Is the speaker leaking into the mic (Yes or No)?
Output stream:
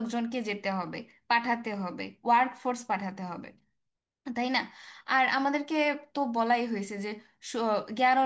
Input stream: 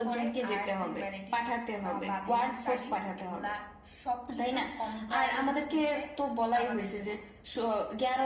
Yes